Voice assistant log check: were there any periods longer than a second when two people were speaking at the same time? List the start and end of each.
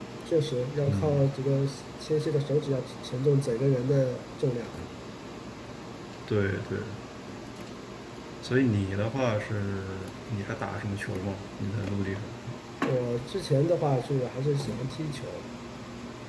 none

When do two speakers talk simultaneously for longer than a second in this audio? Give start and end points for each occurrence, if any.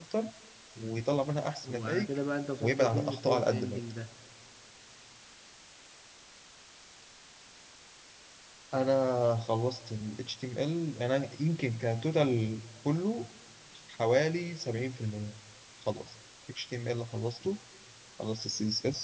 2.6-3.8

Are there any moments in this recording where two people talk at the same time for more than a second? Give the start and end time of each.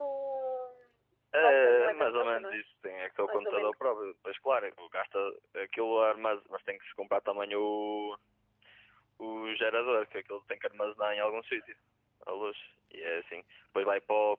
1.4-2.6

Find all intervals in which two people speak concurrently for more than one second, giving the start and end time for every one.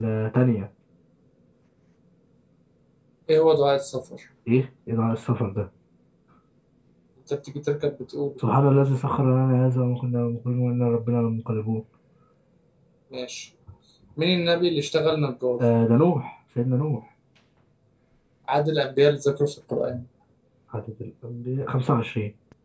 none

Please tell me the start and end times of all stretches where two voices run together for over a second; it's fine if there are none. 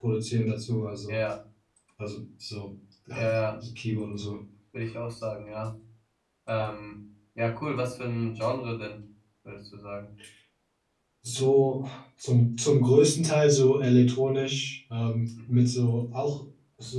none

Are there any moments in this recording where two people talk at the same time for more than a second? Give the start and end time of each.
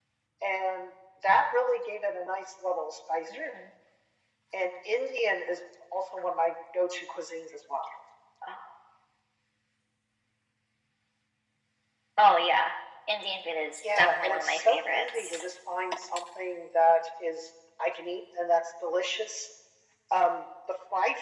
14.0-15.5

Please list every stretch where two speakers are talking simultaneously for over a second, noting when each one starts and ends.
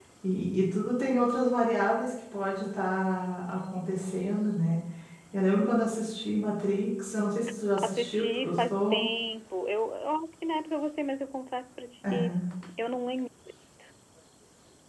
7.8-9.0

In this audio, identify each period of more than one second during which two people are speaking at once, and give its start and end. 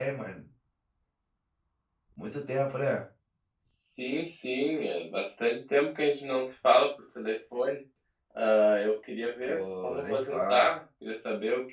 9.5-10.7

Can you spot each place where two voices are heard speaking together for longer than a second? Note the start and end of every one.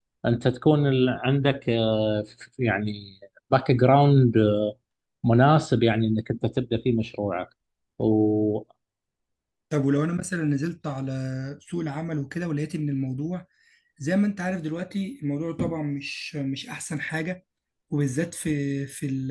none

